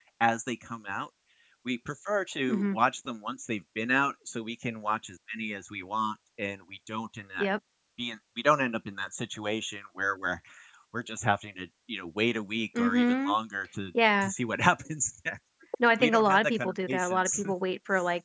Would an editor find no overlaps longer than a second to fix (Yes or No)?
No